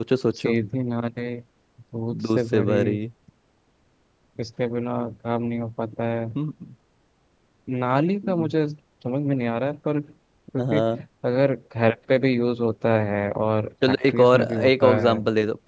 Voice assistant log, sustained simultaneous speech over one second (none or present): present